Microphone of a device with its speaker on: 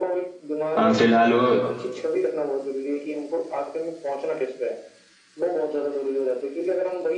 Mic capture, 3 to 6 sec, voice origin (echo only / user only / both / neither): echo only